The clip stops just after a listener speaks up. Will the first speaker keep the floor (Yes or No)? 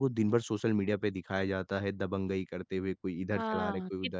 No